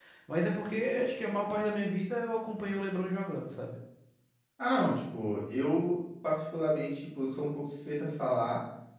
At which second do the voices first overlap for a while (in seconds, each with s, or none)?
none